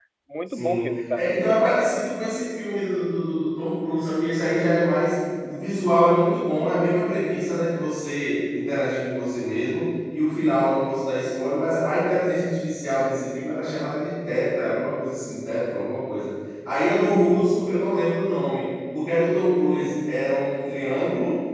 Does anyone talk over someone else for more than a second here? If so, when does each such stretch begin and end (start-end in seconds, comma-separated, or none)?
0.5-1.9